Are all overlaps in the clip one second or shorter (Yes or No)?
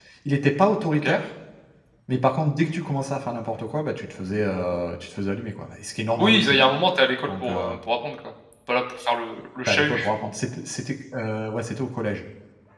Yes